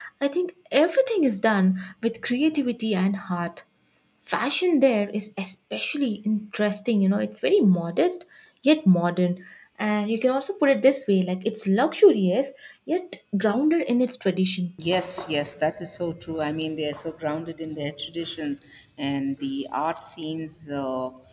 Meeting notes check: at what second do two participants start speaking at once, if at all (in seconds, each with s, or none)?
none